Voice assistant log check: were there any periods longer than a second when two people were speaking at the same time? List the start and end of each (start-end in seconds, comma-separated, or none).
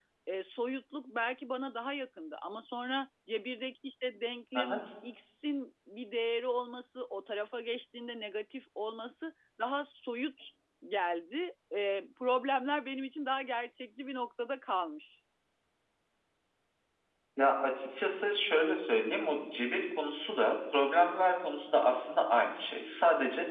none